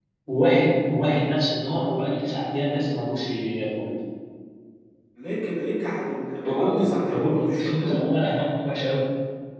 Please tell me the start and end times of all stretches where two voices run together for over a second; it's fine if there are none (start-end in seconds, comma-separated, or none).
6.4-8.0